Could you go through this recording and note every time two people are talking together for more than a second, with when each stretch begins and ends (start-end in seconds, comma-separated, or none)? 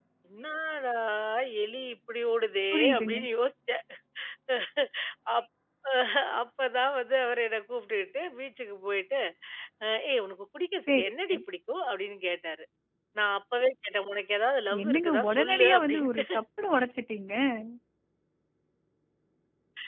14.8-16.2